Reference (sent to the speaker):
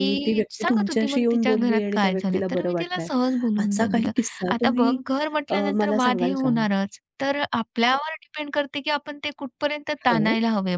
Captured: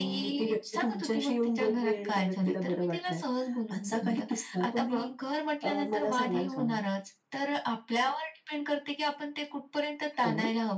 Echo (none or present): present